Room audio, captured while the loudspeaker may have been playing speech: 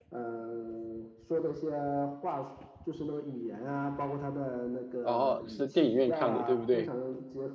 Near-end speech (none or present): present